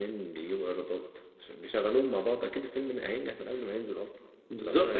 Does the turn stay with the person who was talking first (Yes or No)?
No